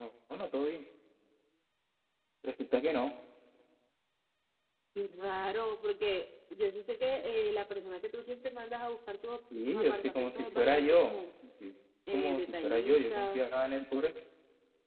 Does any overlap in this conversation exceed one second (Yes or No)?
Yes